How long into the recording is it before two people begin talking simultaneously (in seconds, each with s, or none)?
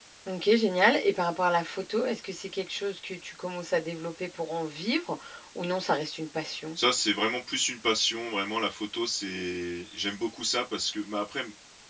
none